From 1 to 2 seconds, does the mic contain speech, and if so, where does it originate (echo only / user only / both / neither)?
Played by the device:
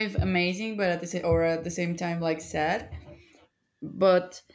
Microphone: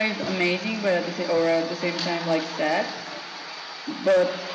echo only